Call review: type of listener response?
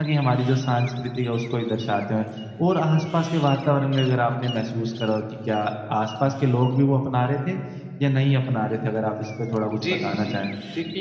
taking over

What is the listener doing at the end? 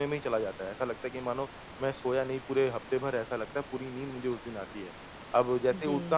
listening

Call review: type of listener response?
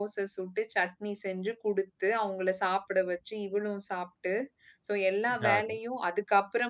listening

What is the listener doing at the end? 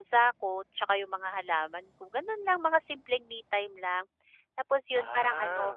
listening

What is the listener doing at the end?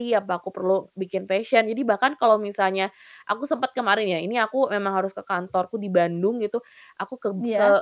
listening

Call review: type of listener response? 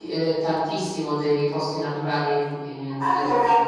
taking over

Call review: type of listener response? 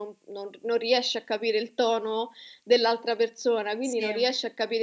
listening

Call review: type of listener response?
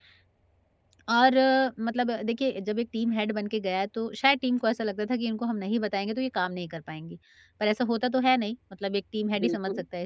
listening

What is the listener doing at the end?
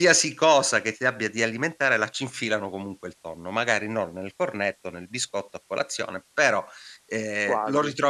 listening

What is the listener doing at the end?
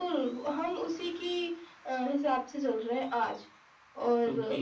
taking over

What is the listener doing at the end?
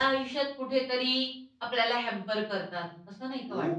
taking over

